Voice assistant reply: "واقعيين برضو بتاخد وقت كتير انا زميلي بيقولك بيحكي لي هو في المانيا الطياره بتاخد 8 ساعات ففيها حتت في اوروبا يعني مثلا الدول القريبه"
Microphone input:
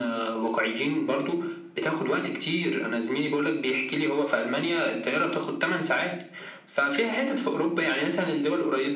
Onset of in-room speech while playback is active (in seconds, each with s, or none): none